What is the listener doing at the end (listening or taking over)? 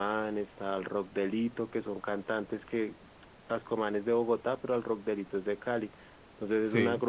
listening